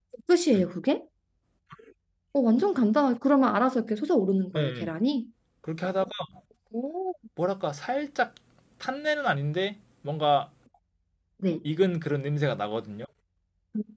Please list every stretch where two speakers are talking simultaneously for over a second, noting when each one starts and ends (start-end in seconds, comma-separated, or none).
none